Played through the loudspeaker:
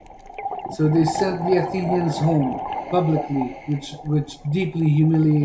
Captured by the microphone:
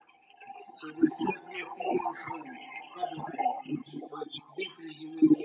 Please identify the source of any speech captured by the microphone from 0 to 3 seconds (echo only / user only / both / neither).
echo only